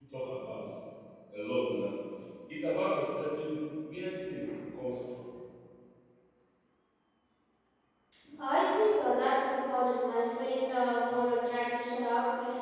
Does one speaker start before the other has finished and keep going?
No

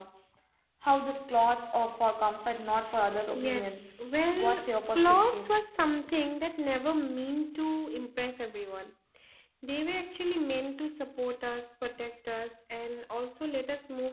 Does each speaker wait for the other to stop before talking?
No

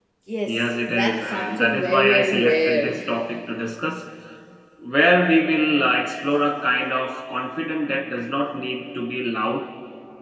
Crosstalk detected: Yes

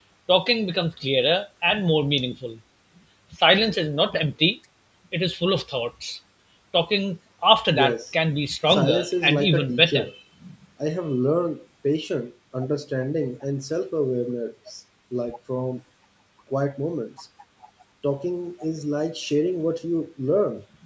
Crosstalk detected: Yes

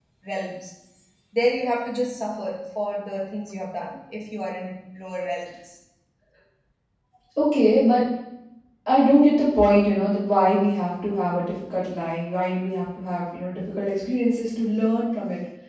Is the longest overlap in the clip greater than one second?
No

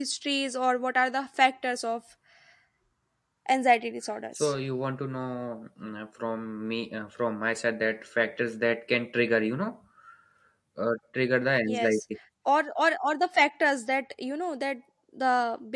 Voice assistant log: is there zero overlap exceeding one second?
Yes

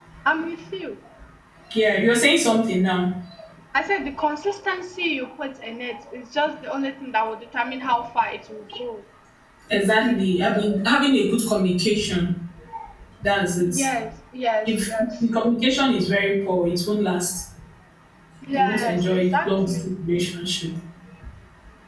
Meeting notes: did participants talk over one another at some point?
Yes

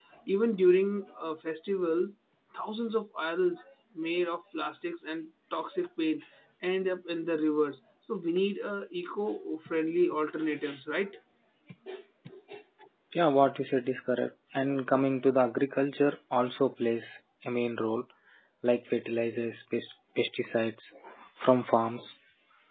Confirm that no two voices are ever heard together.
Yes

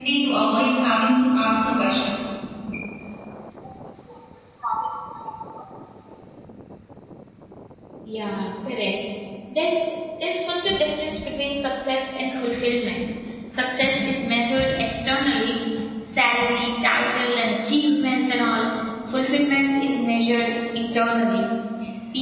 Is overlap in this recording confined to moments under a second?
Yes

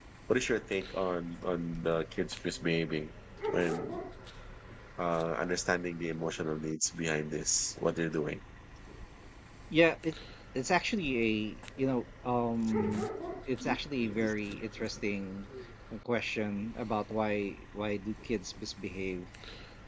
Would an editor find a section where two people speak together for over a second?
No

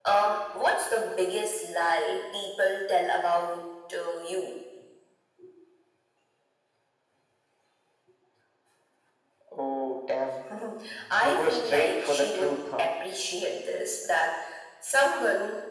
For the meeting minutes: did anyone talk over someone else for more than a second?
Yes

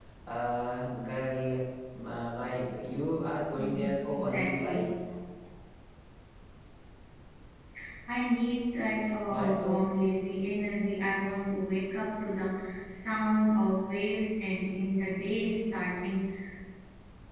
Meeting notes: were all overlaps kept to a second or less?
No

